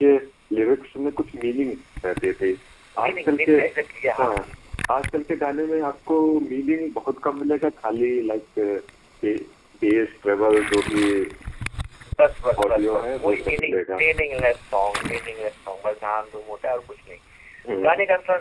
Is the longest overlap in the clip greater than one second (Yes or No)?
Yes